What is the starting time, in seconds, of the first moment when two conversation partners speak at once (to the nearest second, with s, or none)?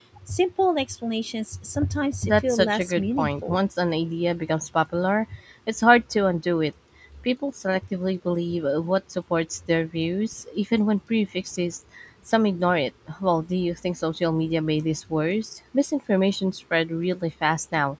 2 s